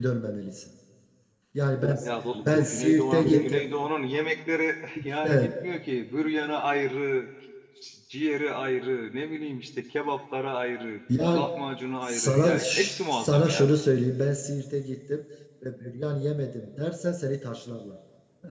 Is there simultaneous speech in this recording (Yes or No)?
Yes